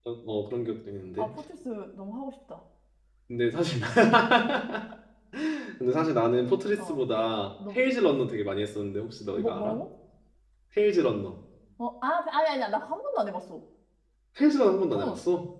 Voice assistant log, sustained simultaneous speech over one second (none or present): none